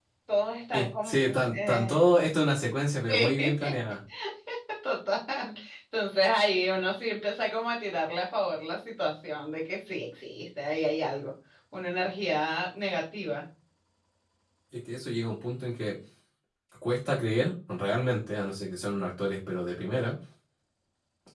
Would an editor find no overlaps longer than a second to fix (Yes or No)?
No